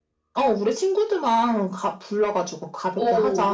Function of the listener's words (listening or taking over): taking over